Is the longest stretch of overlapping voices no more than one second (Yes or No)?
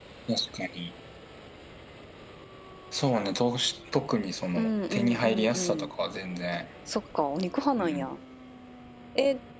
No